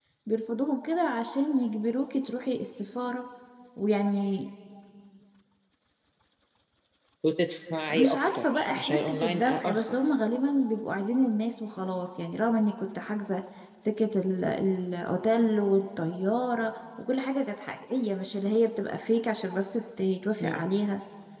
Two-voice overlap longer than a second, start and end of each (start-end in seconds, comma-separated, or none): 7.9-9.9